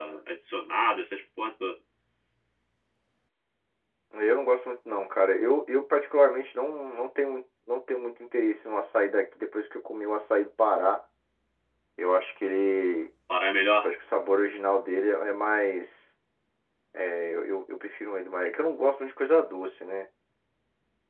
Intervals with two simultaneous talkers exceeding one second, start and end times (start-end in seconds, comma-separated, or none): none